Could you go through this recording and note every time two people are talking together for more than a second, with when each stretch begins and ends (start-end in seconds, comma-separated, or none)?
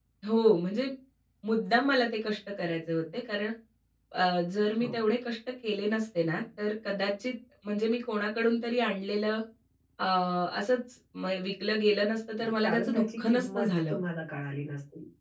12.4-14.0